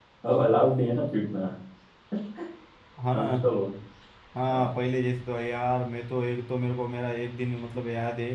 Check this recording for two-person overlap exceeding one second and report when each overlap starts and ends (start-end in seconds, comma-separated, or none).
none